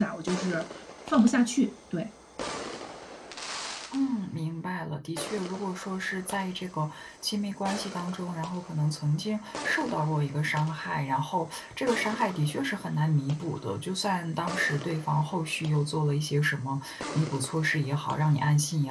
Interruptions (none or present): none